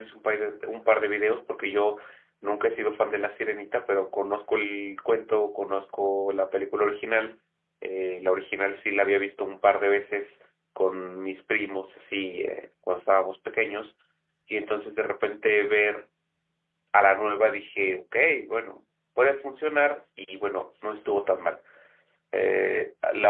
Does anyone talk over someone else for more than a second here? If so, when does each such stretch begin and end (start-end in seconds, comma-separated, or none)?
none